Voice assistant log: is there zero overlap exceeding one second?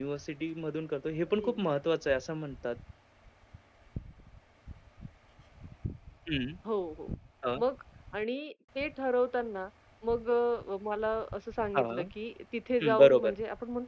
Yes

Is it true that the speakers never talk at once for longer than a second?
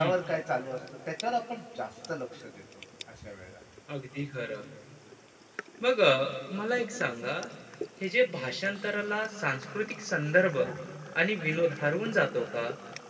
Yes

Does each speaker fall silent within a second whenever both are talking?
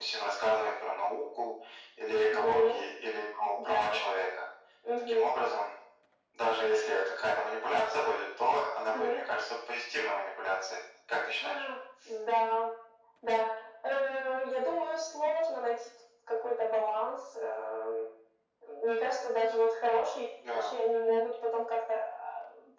Yes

